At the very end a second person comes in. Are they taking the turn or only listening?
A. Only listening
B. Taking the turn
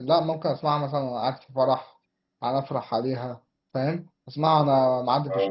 A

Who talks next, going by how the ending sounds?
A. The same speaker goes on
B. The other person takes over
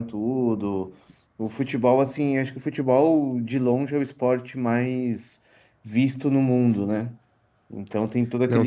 B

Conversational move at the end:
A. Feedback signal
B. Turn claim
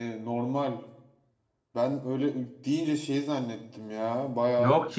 B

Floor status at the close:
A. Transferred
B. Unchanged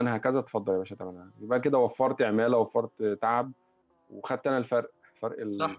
A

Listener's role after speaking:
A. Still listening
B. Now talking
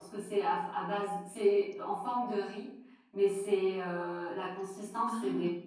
A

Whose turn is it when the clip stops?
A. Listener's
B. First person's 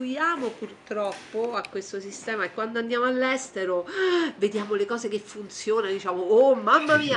B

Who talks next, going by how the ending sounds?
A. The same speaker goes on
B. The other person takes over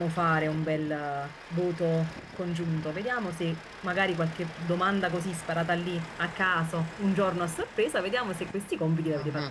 A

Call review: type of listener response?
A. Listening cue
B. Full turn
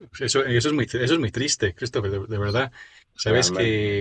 A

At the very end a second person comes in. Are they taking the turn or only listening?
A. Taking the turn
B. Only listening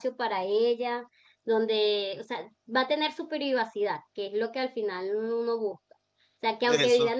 B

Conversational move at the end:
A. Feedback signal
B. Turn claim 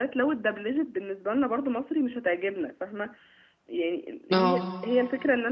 A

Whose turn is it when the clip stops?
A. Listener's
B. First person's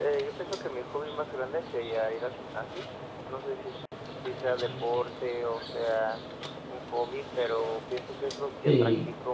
B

